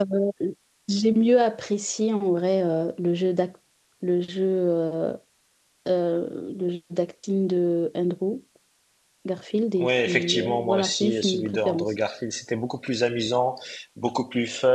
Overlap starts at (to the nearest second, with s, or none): 10 s